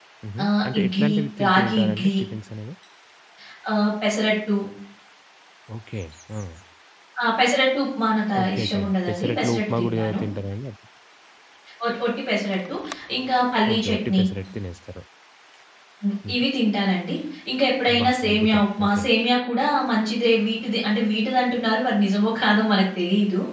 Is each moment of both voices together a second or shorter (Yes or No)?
No